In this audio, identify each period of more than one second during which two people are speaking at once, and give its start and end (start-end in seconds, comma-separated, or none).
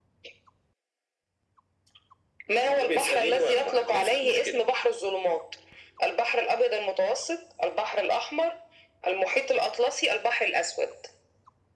2.7-4.7